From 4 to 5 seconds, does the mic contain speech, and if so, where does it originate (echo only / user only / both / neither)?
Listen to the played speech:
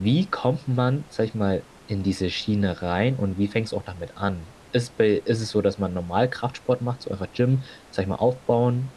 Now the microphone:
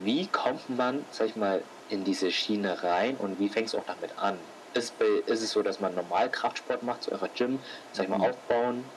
echo only